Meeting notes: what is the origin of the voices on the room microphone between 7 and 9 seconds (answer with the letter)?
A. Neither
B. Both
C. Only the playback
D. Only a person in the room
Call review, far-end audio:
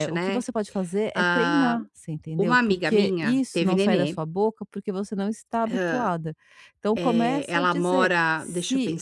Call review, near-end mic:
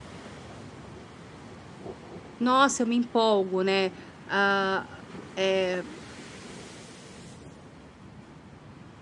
A